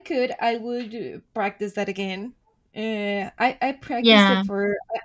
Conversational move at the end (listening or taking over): listening